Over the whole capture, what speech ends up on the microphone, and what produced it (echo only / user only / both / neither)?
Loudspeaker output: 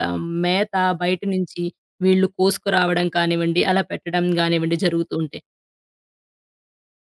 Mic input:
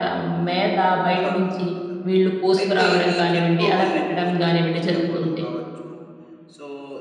both